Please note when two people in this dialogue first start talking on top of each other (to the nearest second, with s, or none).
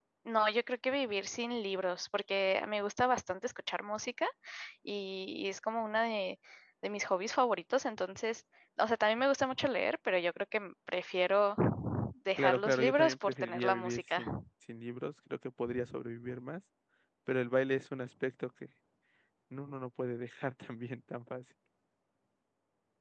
12 s